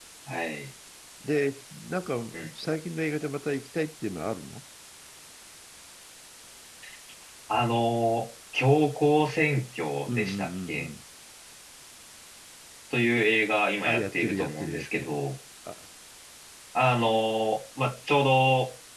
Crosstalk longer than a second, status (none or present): present